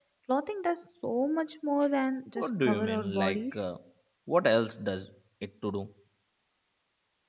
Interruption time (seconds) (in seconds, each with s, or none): 2.4 s